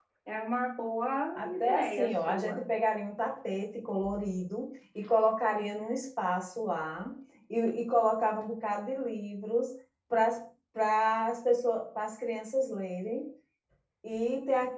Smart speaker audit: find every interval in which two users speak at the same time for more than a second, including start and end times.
1.3-2.6

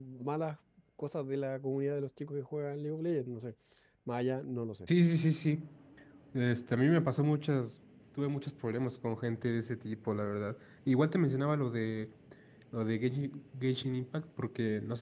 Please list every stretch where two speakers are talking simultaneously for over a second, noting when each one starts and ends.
none

